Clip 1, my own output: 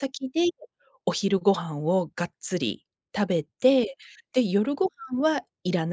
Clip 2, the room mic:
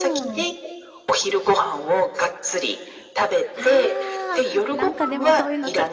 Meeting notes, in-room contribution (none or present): present